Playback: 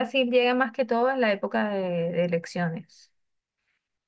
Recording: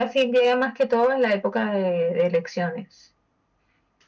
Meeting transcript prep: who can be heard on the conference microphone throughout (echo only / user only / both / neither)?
echo only